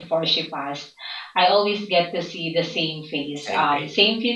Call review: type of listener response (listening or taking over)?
listening